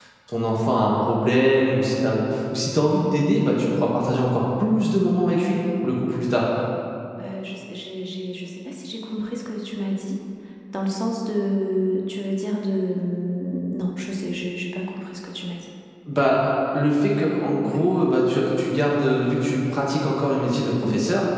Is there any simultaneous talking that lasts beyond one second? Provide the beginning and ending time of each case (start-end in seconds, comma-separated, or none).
none